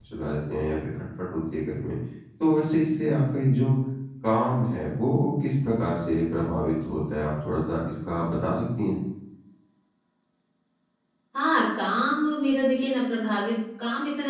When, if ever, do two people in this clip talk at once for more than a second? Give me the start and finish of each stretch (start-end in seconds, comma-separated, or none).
none